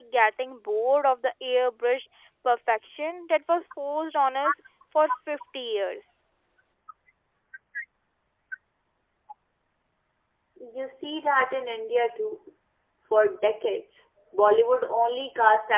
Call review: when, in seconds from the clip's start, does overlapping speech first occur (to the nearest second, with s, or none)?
none